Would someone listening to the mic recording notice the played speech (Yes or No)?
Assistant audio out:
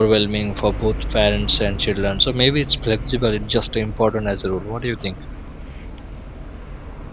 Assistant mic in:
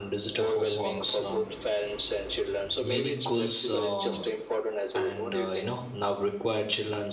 Yes